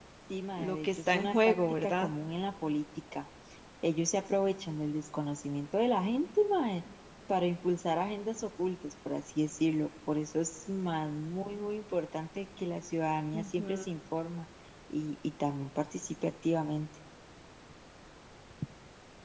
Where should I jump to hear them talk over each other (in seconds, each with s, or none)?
0.6 s